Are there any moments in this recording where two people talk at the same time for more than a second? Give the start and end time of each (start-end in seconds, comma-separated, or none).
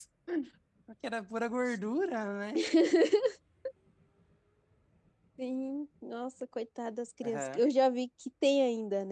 none